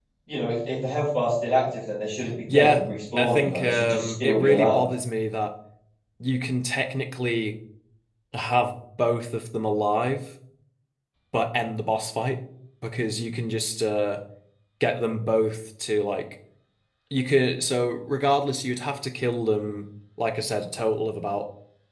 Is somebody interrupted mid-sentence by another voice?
Yes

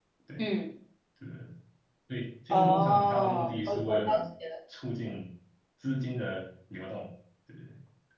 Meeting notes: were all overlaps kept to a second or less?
No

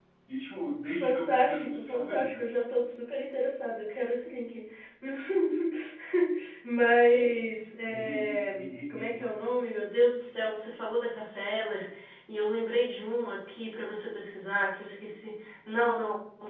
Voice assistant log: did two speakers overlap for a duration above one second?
Yes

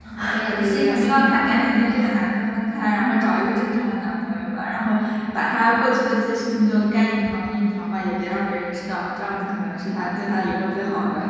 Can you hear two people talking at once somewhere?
Yes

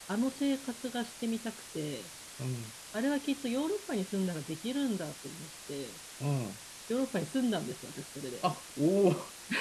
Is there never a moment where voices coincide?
Yes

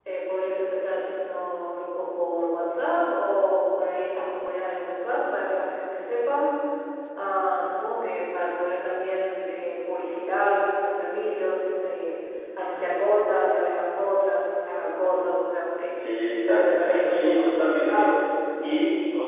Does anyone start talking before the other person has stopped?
Yes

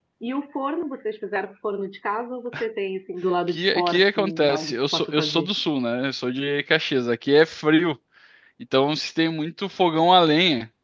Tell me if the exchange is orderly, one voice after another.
No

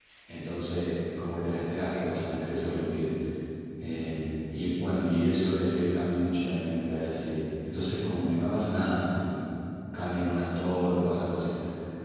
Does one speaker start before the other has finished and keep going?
No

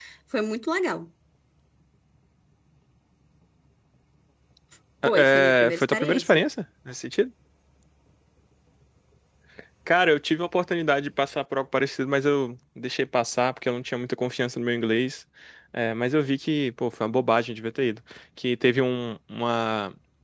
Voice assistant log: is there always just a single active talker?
No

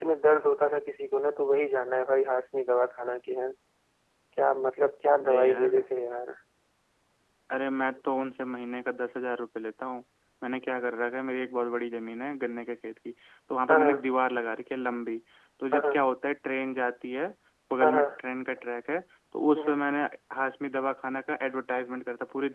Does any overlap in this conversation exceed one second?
No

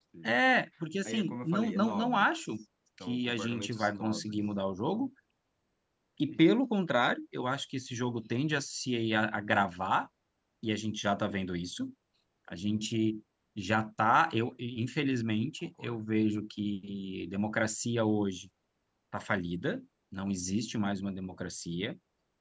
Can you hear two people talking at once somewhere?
Yes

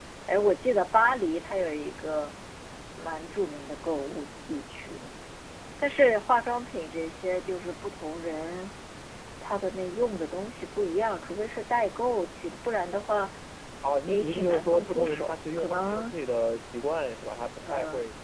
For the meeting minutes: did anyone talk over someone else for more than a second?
Yes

